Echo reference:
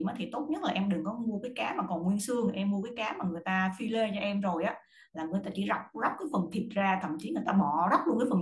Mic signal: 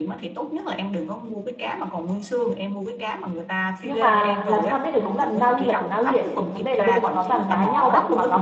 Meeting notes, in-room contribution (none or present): present